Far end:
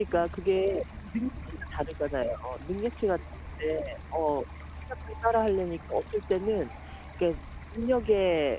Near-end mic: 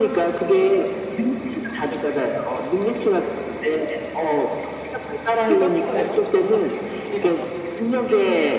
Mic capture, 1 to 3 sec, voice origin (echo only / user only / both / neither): echo only